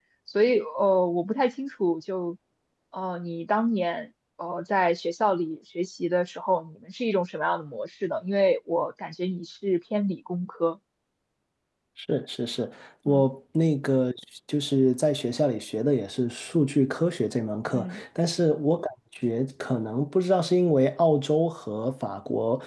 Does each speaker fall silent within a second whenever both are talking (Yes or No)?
Yes